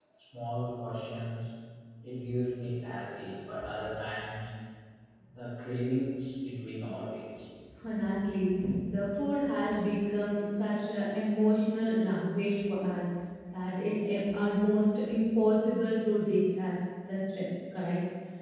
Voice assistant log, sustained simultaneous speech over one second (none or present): none